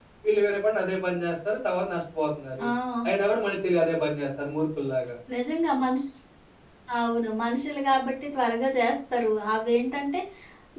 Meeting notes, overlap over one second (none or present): none